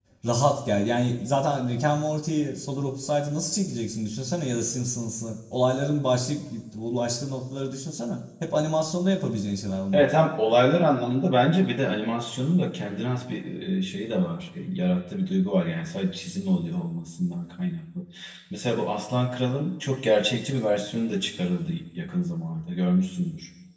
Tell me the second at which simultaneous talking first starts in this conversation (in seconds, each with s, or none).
none